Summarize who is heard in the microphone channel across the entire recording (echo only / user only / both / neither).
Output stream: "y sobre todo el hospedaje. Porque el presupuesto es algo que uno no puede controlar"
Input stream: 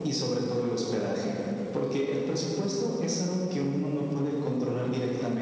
echo only